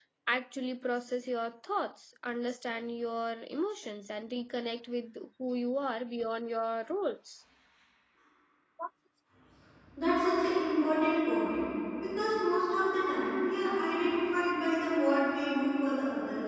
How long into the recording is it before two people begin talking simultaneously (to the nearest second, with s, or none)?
none